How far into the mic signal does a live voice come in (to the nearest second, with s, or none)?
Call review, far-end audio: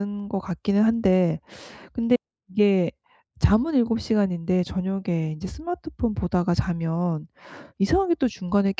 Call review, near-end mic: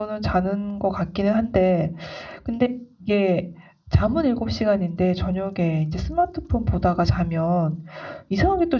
none